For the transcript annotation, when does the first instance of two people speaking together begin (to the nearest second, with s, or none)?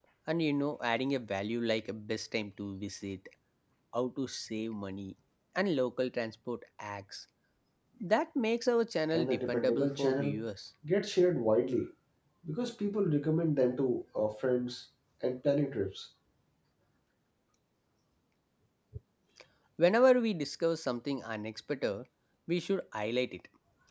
9 s